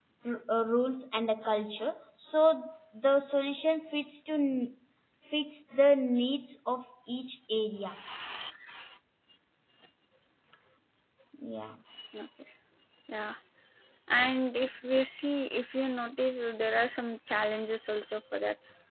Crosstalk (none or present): none